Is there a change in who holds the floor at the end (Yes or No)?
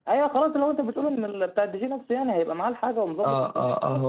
Yes